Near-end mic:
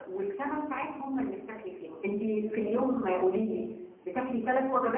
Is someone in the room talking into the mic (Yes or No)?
Yes